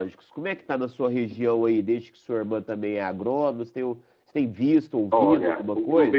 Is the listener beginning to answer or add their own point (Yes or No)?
Yes